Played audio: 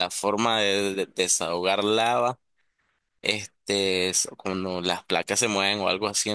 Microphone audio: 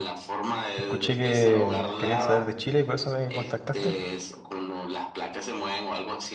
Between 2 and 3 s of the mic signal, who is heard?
both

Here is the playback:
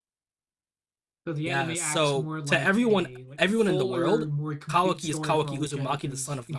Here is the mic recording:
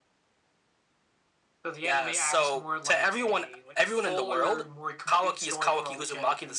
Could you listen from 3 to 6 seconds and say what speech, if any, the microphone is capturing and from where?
echo only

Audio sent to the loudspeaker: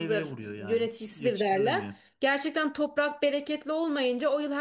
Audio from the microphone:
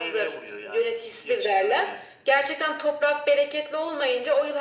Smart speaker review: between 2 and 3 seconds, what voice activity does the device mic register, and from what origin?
echo only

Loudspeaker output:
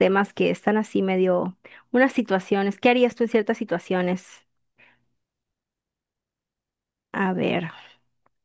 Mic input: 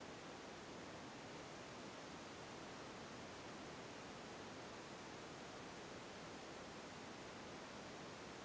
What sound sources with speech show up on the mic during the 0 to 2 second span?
neither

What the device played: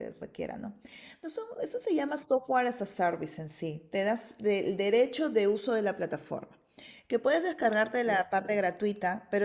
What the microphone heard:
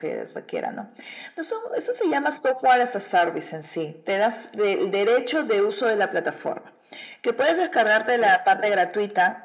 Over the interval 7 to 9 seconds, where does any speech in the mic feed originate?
echo only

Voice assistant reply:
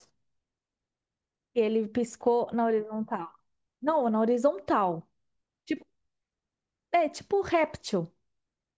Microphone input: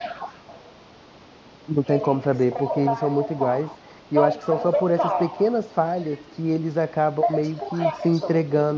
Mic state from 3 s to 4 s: both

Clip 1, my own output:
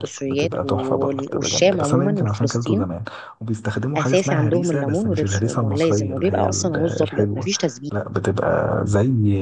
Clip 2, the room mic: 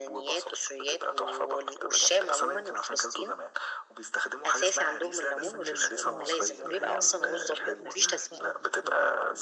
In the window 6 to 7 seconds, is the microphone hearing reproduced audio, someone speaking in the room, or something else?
both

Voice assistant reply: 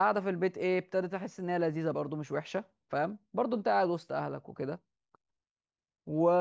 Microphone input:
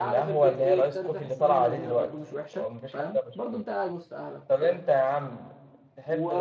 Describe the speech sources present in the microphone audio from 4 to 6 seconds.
both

